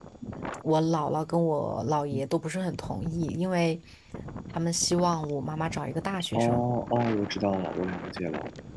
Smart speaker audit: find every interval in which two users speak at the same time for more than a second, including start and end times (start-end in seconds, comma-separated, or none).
none